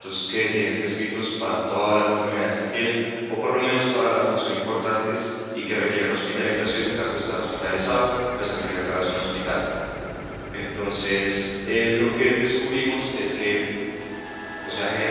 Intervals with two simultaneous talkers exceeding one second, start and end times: none

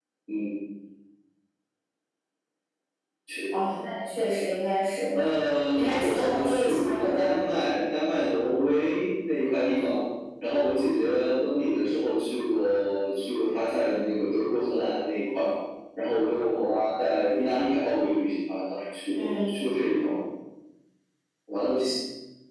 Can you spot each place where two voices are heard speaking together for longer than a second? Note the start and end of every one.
5.7-7.5

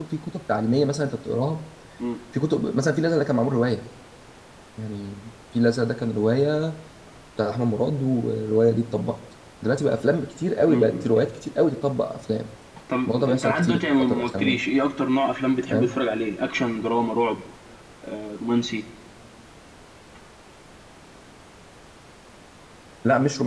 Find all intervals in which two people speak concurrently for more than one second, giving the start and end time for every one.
13.1-14.6

